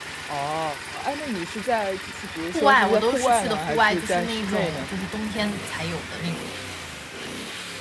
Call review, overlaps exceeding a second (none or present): present